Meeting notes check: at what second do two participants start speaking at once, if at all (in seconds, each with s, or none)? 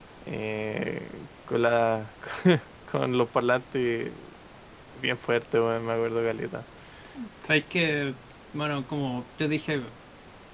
none